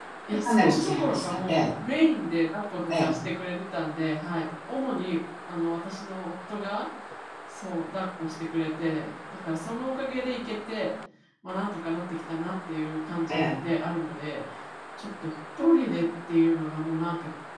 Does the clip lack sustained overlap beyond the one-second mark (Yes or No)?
No